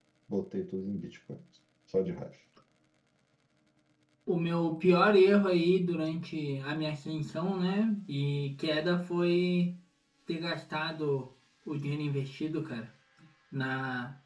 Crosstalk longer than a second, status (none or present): none